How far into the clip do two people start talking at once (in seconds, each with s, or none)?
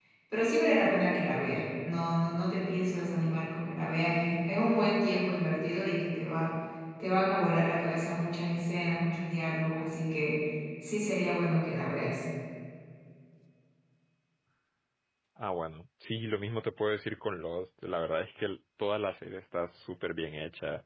none